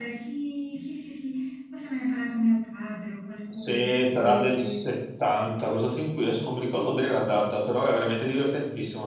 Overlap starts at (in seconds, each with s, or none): 3.5 s